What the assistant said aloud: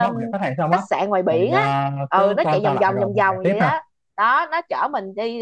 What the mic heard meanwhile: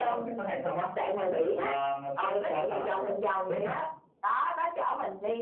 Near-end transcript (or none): none